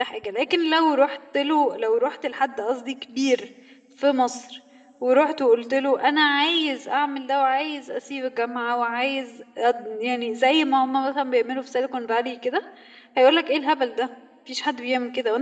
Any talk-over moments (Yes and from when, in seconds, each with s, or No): No